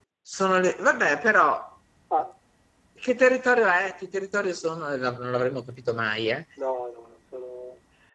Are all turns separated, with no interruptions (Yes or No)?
Yes